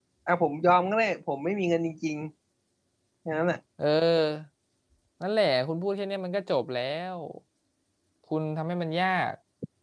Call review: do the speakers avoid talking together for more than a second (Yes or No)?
Yes